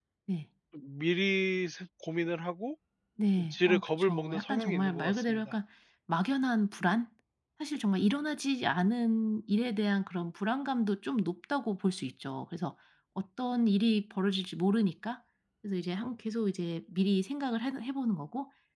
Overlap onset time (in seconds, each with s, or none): 3.4 s